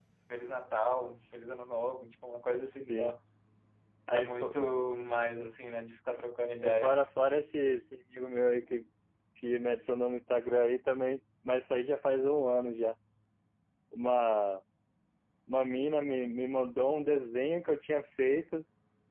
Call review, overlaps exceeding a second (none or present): none